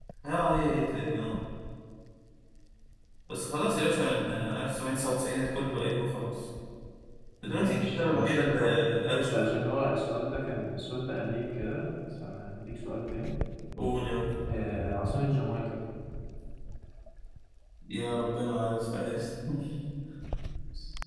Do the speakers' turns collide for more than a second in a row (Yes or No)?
Yes